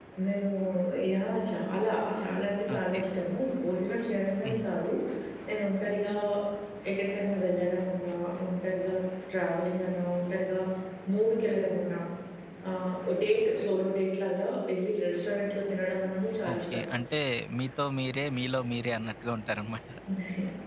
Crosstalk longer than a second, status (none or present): none